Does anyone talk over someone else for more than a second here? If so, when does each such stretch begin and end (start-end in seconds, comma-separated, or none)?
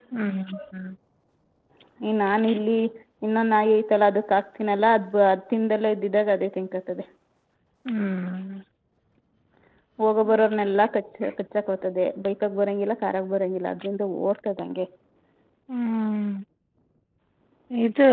none